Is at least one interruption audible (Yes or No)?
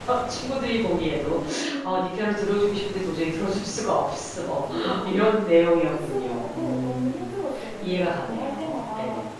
Yes